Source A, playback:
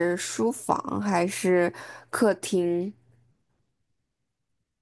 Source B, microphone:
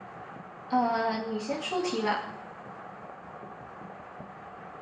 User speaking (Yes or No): Yes